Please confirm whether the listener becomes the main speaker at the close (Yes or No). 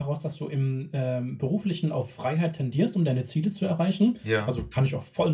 No